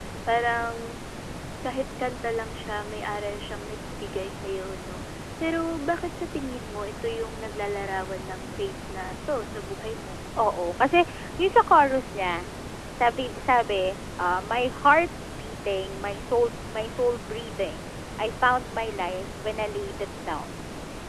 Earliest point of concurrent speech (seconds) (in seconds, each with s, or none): none